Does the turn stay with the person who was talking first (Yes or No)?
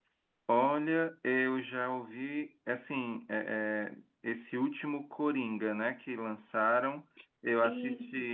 Yes